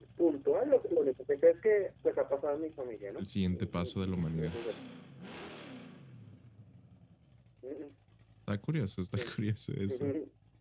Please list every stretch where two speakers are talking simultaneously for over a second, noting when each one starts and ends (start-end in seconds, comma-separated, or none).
3.2-4.6